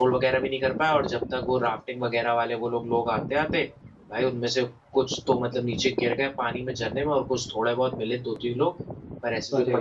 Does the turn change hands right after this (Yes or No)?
No